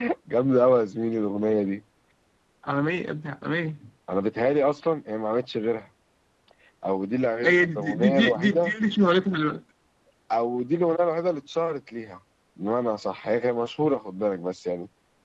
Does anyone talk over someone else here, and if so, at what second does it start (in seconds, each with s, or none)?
7.4 s